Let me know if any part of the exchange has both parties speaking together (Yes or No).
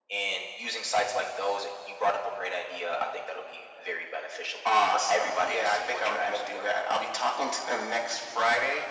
Yes